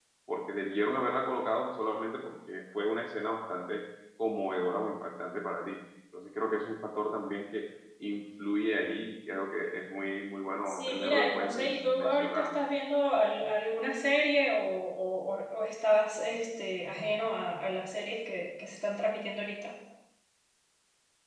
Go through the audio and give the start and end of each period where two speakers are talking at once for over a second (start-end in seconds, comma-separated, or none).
10.7-12.5